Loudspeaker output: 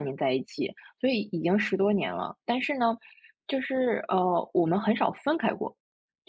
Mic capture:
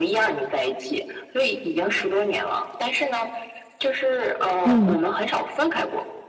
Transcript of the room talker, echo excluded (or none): 嗯。